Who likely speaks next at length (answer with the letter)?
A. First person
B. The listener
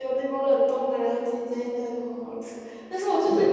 A